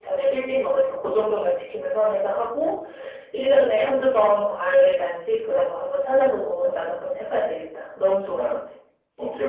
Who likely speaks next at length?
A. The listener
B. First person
A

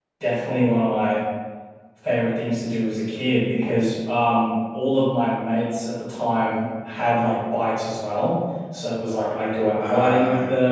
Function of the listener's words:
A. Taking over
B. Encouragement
B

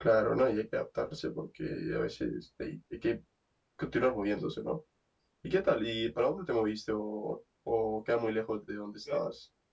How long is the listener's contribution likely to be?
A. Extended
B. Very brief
A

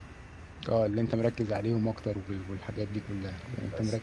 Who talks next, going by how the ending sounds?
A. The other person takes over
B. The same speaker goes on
B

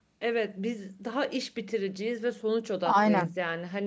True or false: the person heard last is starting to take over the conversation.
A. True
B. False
B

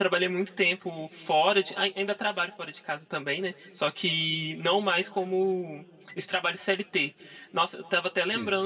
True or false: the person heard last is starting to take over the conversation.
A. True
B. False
B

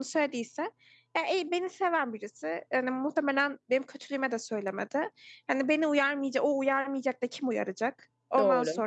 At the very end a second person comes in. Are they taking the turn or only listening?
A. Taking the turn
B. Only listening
B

